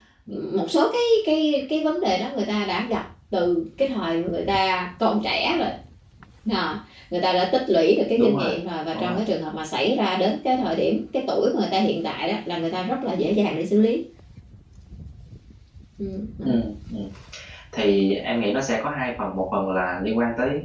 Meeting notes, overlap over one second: none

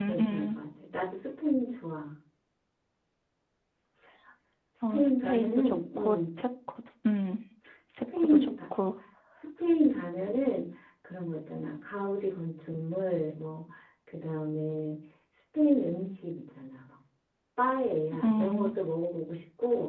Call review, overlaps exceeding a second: present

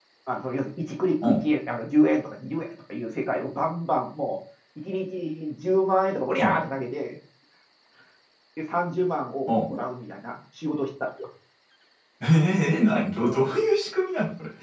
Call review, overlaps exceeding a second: none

